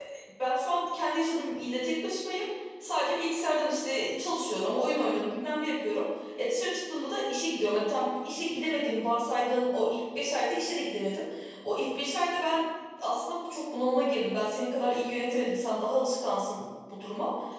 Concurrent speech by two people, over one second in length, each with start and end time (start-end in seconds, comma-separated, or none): none